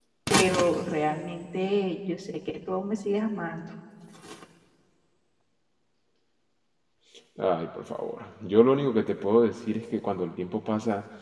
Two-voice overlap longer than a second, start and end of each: none

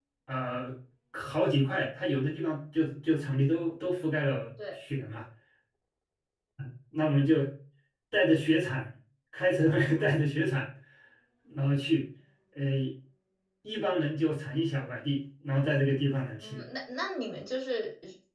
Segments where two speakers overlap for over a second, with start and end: none

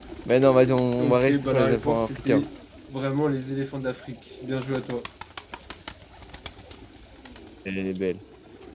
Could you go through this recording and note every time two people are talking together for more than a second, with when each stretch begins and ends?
1.0-2.4

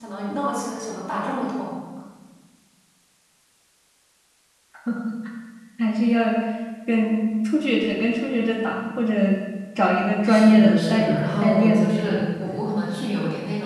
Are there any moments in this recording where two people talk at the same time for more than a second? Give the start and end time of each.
10.3-12.2

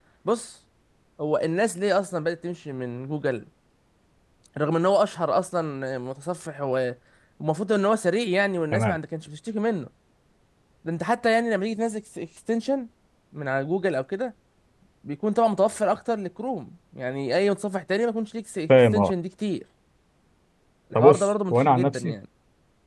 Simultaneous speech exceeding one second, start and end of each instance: 21.0-22.2

